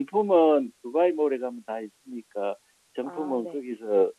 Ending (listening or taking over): listening